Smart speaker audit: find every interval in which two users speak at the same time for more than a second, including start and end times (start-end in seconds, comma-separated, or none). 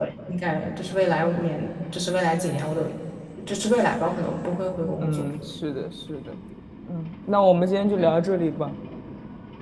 none